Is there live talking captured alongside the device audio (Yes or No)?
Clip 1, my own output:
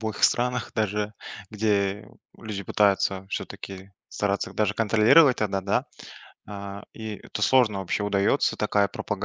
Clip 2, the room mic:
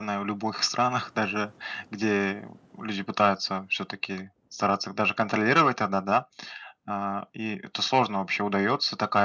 No